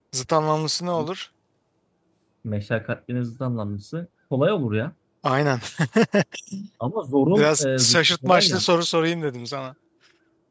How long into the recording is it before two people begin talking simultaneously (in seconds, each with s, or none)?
7.3 s